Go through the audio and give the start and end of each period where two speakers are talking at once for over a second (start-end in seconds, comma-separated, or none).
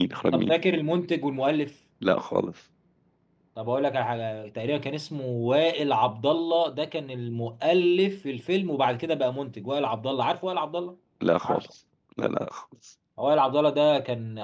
none